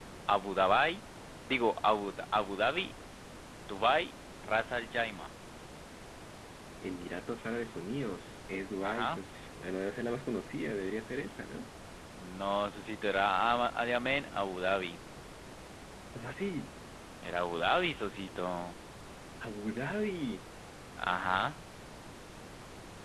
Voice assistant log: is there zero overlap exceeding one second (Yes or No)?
Yes